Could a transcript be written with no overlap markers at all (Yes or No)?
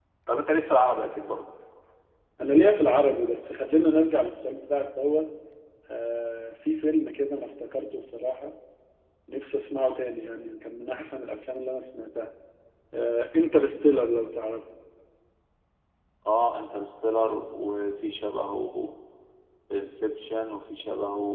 Yes